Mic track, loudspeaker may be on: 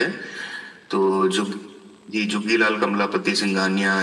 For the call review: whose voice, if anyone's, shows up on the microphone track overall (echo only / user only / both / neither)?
echo only